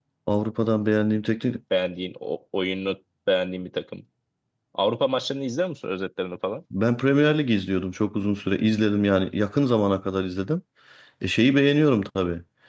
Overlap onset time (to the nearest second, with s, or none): none